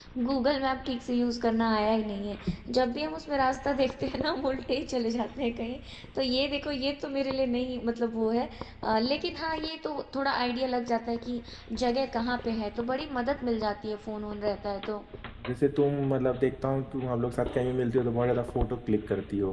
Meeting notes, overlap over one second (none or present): none